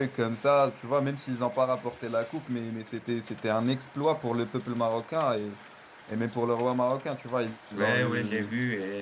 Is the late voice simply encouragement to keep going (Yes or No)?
No